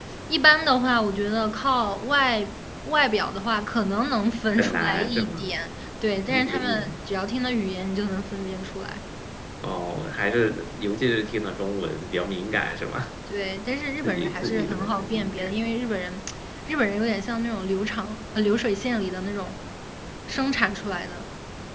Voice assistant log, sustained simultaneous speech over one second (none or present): present